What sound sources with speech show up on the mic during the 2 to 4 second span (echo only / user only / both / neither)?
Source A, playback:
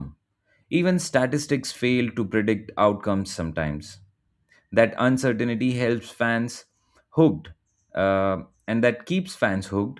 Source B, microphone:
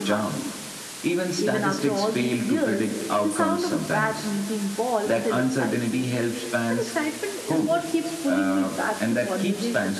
both